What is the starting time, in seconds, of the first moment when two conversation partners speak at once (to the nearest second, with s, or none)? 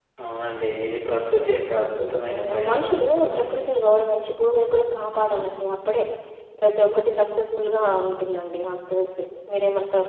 2 s